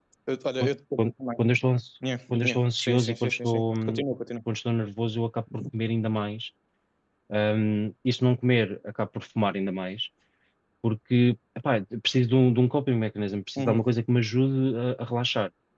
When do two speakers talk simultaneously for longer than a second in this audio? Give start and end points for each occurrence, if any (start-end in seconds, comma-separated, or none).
2.3-4.0